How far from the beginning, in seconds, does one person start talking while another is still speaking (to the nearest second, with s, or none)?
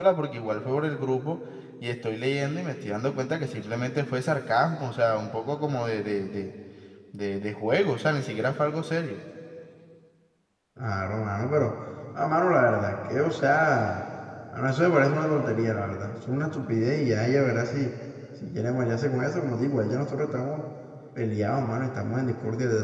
none